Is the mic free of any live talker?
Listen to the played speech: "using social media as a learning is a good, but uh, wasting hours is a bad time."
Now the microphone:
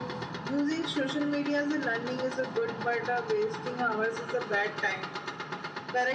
Yes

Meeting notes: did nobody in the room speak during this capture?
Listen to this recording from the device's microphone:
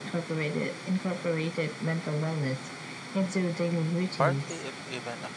No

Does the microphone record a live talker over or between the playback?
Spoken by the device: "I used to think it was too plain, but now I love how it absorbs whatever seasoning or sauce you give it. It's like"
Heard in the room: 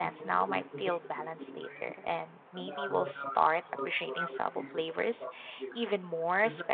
Yes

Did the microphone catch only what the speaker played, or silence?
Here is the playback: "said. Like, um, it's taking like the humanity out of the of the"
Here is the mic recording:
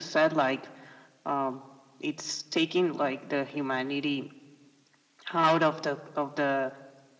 Yes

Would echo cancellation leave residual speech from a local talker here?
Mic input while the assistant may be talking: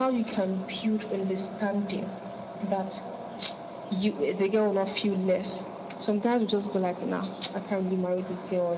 No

